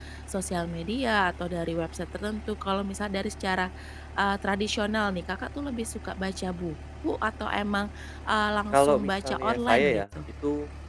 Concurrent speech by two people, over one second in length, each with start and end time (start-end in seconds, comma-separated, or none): 8.7-10.0